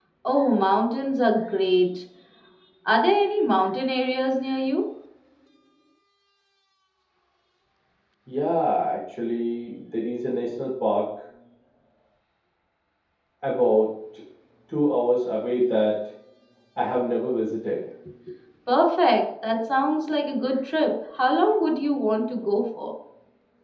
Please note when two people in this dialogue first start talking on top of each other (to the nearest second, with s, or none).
none